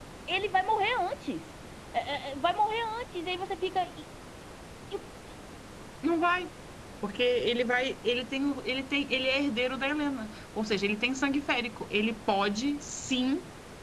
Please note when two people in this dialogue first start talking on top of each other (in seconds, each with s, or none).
none